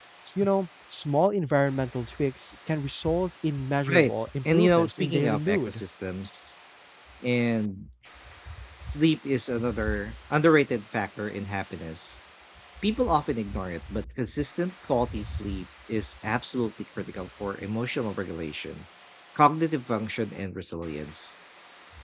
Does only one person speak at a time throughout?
No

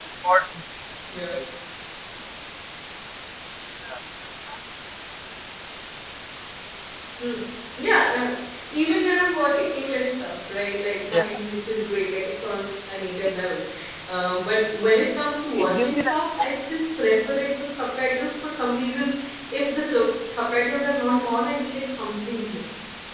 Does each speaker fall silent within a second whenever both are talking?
Yes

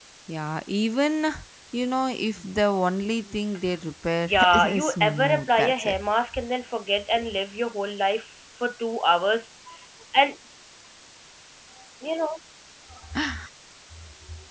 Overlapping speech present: Yes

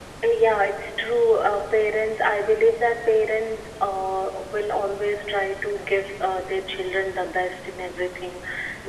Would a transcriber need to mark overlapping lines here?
No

